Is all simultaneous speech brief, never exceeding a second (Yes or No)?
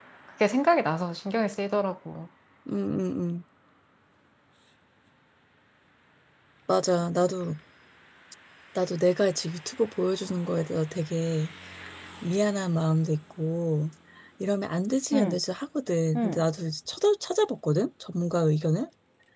Yes